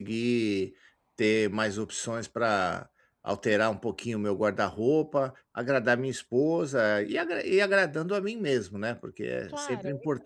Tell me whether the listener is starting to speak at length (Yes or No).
Yes